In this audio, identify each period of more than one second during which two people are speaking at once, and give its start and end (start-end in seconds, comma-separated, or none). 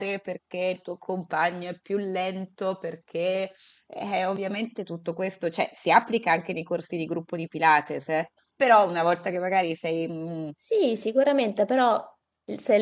none